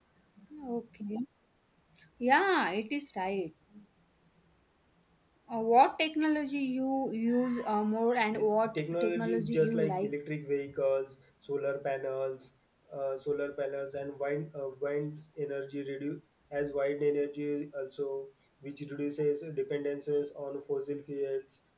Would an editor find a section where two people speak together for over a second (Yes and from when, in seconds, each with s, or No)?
Yes, from 8.3 s